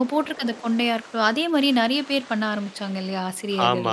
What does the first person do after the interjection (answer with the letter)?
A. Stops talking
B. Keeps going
A